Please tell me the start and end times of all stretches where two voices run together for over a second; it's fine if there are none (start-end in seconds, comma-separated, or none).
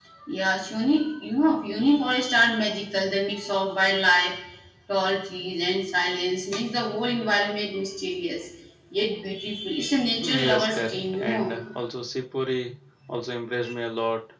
10.2-11.6